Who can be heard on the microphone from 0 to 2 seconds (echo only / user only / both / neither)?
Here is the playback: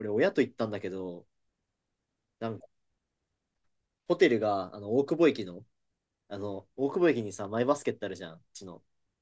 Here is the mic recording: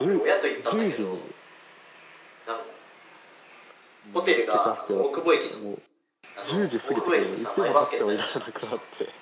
both